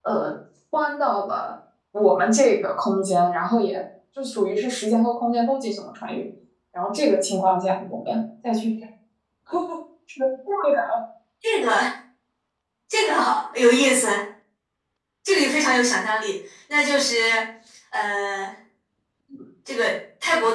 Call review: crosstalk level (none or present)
none